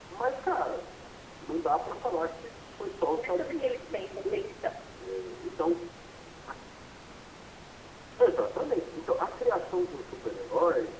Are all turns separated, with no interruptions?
No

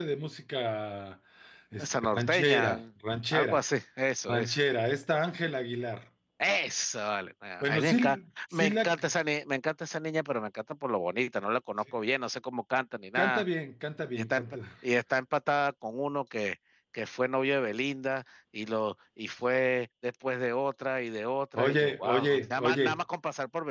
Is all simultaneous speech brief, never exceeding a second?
No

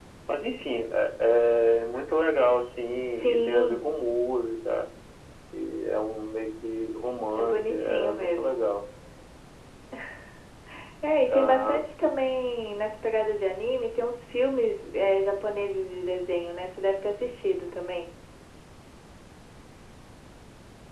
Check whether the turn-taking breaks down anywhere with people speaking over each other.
Yes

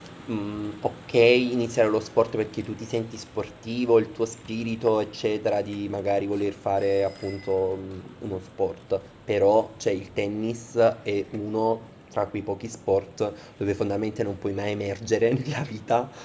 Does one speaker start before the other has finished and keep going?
No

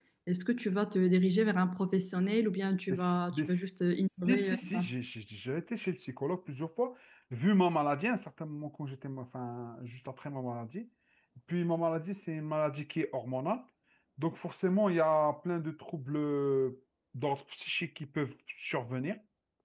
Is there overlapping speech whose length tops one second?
Yes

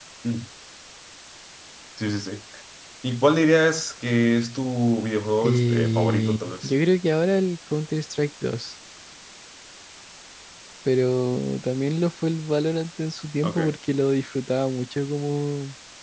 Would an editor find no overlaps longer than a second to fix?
No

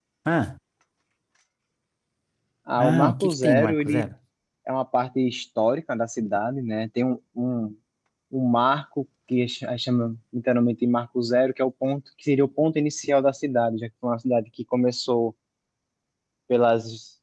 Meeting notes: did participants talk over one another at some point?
Yes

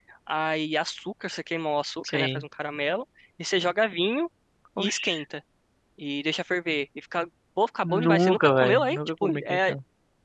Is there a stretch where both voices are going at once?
Yes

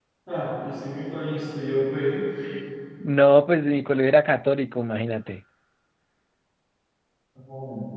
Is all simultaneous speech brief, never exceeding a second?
Yes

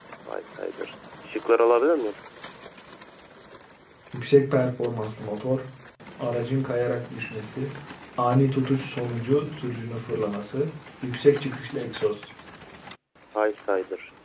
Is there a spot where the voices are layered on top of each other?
No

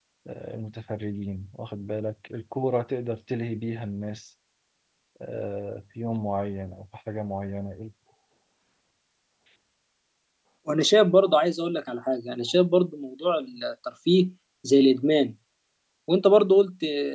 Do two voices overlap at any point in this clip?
No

